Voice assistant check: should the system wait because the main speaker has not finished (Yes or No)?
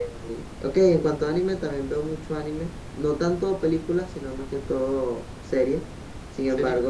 Yes